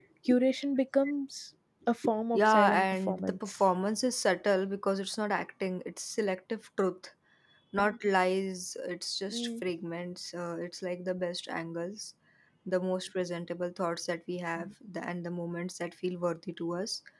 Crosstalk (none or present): present